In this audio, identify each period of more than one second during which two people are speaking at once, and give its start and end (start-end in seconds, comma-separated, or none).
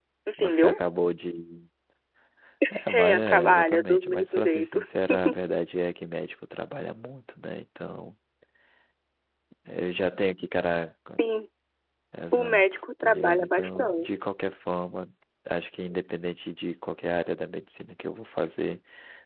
2.9-4.8, 12.3-14.2